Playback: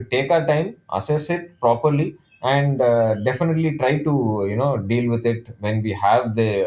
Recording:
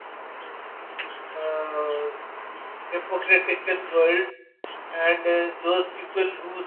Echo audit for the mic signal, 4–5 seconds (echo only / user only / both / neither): user only